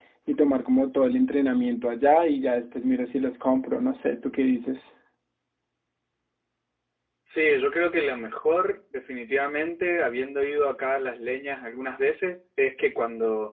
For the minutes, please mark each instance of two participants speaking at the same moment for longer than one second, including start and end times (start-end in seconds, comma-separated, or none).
none